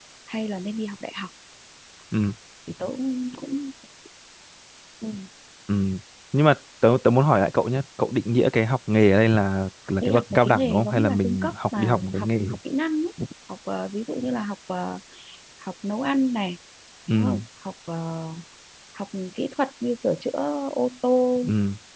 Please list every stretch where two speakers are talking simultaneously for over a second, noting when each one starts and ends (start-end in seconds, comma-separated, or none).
10.0-12.6